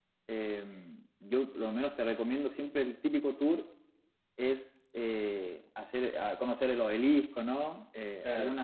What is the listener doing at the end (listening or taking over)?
listening